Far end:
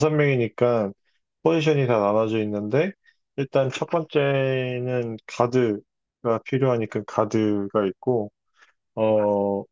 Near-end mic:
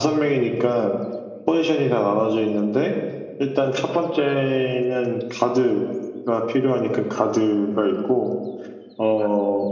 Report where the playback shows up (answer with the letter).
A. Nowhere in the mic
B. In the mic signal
B